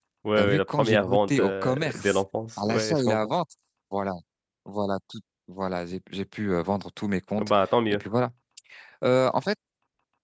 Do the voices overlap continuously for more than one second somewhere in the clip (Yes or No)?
Yes